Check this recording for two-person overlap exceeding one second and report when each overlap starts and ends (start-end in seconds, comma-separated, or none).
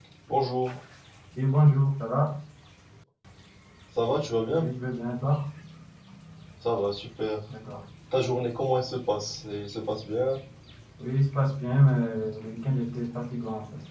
none